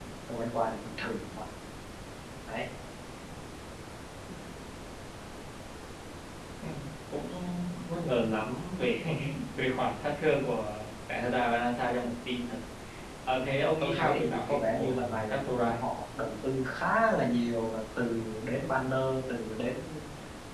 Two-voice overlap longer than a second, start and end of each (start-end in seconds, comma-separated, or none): 13.8-15.8